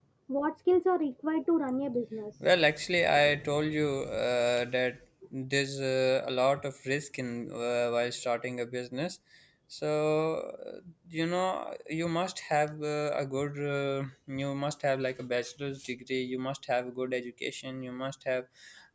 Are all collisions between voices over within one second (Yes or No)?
Yes